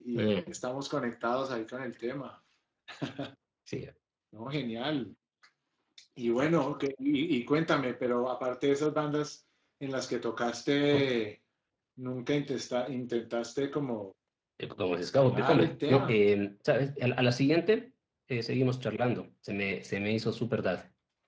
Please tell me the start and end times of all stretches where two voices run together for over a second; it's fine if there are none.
14.7-16.2

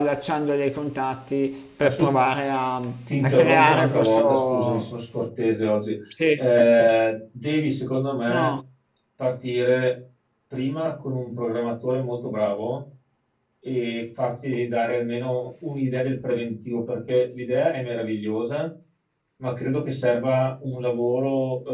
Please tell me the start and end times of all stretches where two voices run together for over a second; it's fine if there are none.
3.2-4.9

